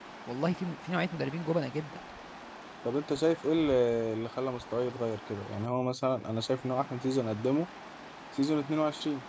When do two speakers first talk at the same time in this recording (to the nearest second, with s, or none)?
none